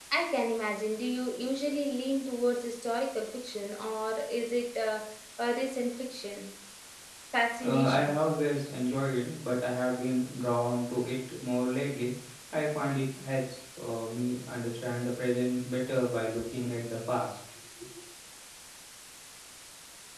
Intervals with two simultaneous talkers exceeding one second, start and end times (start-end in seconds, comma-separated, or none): none